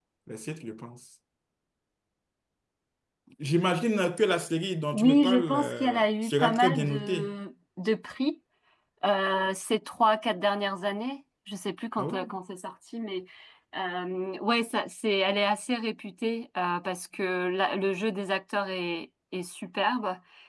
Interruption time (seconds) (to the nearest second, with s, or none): 5 s